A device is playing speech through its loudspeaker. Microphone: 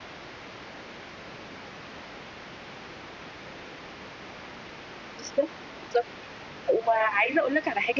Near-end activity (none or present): present